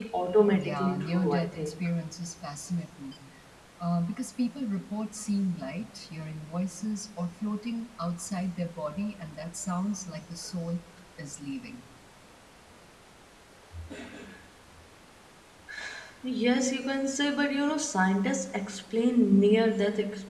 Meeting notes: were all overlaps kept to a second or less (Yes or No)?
No